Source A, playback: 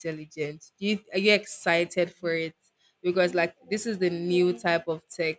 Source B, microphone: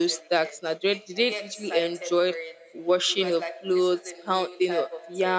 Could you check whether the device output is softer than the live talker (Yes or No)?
Yes